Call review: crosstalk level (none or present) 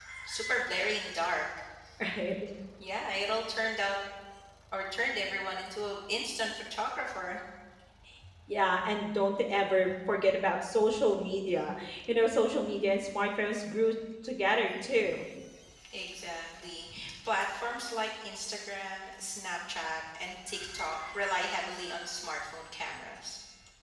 none